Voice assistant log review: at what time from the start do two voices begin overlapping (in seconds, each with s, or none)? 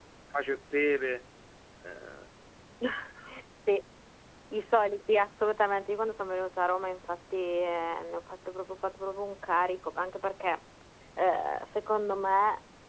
none